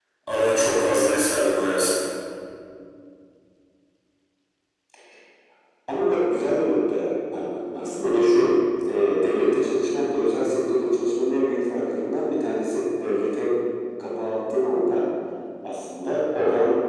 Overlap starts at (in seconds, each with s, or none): none